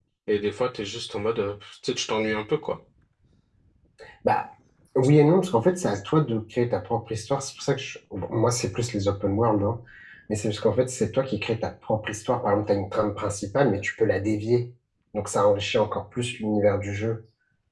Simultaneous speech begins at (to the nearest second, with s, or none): none